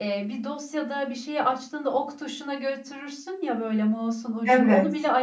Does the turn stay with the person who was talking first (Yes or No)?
Yes